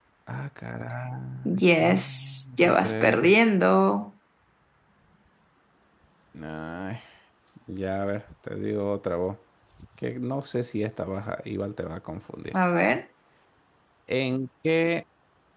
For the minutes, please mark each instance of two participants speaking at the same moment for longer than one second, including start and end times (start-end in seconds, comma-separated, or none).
1.4-3.3